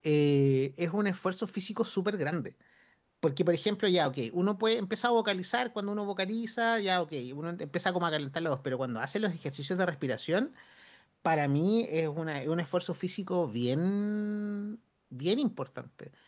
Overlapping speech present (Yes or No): No